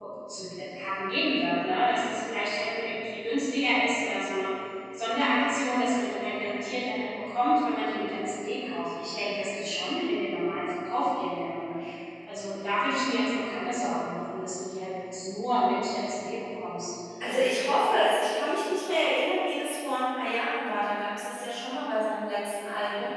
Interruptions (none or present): none